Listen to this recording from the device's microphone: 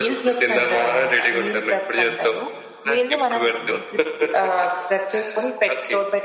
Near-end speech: none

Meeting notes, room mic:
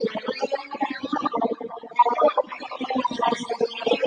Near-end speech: none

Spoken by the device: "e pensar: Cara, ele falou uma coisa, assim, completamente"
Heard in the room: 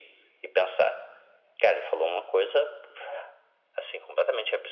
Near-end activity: none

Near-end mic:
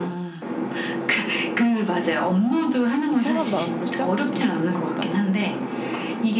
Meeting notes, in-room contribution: present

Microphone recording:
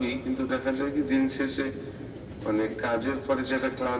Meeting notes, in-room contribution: none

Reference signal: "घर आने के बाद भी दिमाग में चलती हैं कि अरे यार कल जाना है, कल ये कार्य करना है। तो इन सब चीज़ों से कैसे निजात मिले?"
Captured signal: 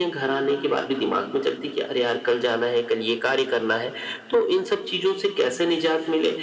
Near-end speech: none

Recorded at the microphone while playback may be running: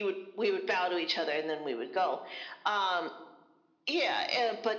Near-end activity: none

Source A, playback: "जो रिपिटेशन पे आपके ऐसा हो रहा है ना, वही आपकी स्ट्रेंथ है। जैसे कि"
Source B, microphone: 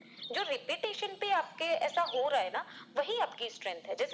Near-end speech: none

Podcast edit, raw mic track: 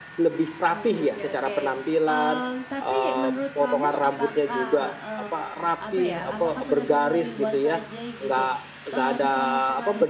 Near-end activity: present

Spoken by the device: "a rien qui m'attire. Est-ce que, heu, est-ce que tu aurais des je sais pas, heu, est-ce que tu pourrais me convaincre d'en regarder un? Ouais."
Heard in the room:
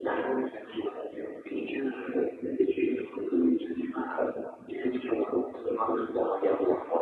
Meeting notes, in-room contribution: none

